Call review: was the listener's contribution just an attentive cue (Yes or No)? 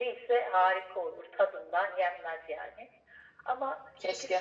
Yes